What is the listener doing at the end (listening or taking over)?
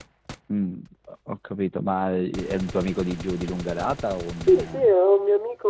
taking over